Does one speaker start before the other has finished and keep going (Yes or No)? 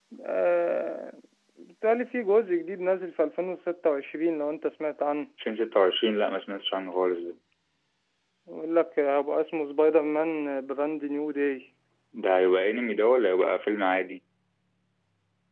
No